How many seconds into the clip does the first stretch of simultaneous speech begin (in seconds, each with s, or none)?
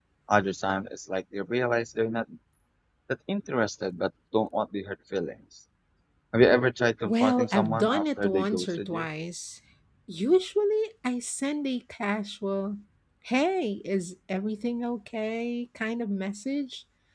7.0 s